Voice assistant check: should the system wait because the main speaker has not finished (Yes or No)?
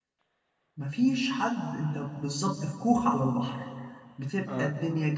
Yes